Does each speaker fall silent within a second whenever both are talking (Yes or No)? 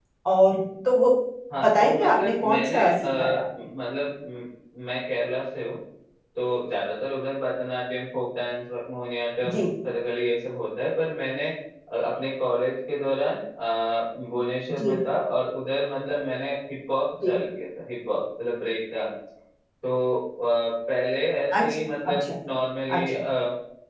No